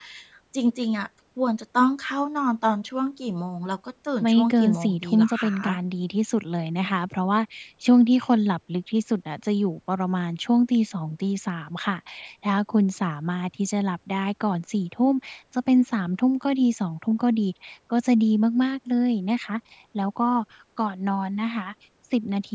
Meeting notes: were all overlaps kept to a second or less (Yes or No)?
No